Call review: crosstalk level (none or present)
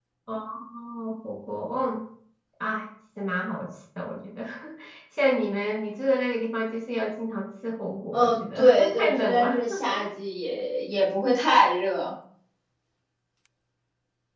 present